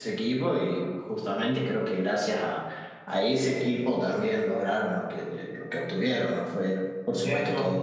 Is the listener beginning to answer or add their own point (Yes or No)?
Yes